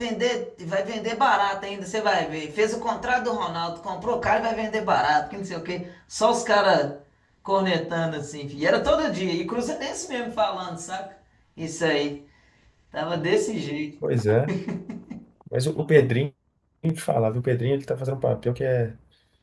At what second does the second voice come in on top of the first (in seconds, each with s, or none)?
none